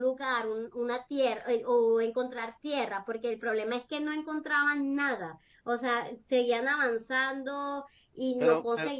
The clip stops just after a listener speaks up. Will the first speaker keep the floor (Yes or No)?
Yes